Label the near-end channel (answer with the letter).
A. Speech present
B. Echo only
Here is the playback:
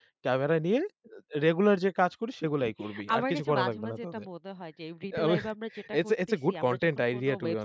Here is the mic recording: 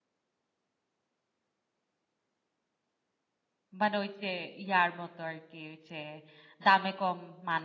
A